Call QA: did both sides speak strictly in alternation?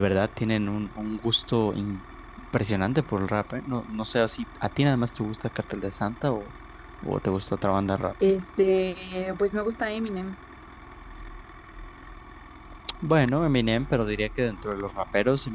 Yes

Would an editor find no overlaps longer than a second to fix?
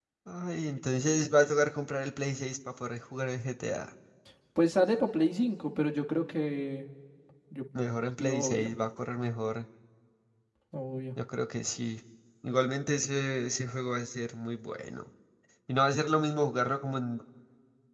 Yes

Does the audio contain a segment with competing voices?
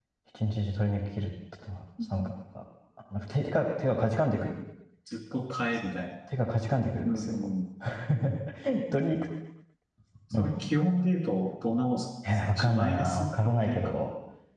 Yes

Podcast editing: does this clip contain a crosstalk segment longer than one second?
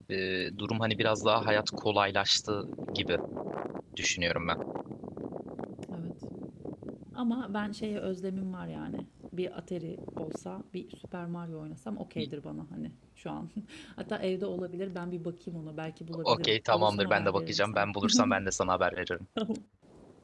Yes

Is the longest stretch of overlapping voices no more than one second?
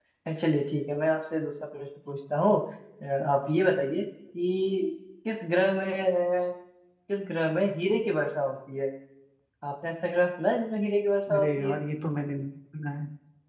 Yes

